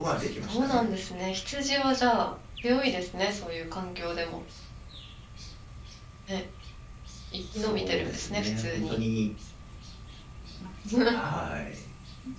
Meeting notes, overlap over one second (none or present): present